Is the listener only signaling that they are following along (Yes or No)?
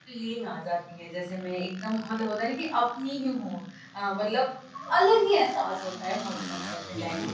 No